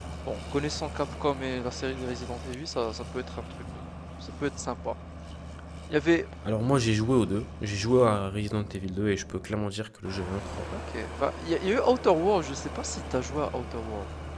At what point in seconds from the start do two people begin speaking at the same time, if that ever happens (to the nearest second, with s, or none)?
none